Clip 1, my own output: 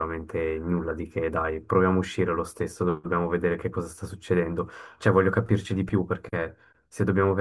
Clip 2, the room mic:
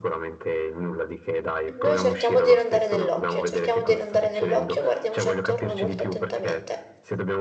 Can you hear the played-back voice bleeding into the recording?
Yes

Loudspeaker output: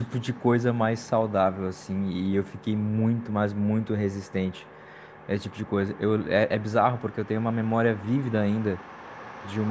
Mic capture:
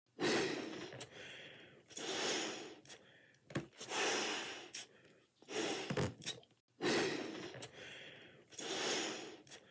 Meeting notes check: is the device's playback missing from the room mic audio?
Yes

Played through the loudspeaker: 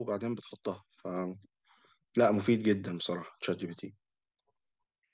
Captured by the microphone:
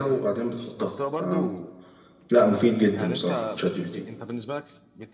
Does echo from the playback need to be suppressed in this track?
Yes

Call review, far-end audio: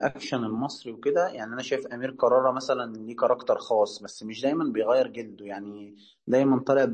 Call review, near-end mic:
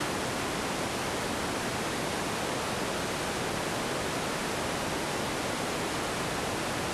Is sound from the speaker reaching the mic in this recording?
No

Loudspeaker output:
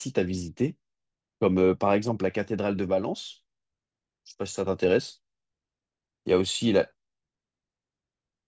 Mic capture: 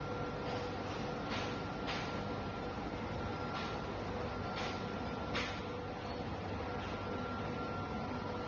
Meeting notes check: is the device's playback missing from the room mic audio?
Yes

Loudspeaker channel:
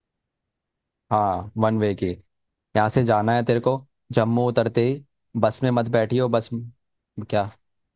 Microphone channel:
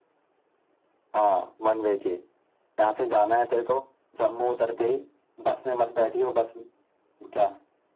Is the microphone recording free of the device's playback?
No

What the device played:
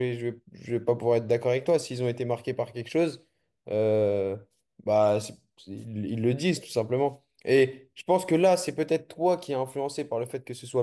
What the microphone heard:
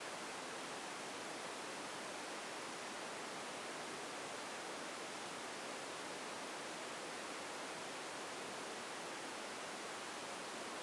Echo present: No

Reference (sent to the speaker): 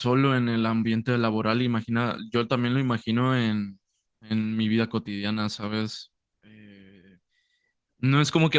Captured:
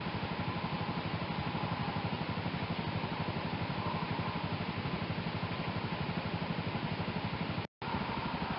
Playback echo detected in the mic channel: No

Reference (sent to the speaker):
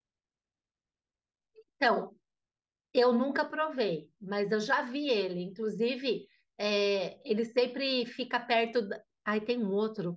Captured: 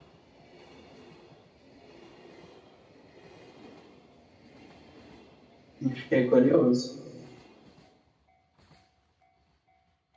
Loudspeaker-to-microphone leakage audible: No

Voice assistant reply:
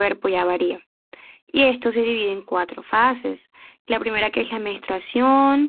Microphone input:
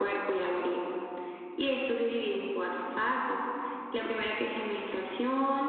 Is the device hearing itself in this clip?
Yes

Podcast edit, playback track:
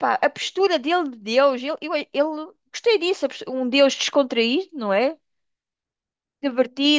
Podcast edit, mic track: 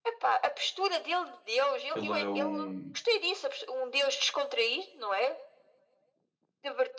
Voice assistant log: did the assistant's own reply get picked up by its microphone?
Yes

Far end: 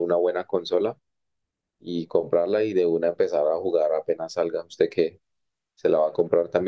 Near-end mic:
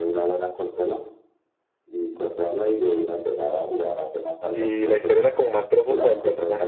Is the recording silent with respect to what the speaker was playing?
No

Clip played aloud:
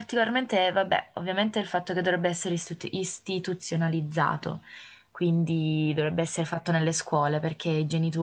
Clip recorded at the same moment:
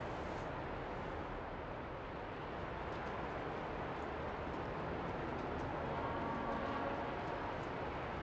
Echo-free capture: Yes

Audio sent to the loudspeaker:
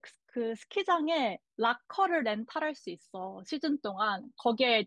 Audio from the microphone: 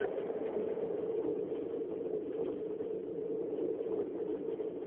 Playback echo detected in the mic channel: No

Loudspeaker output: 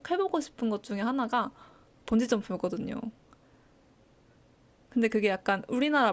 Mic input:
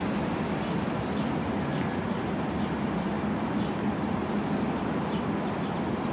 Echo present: No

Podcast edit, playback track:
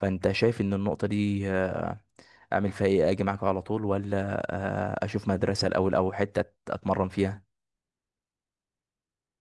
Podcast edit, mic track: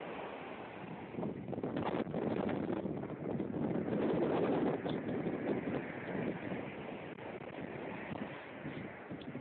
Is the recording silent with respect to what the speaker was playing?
Yes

